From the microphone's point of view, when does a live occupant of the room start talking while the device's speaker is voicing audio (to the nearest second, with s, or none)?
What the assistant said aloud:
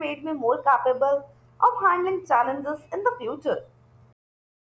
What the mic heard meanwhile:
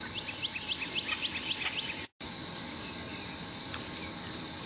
none